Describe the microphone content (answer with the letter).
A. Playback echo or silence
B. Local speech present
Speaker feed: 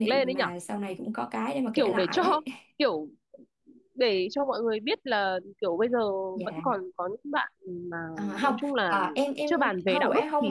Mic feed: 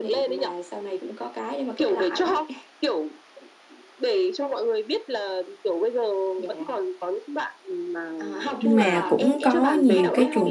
B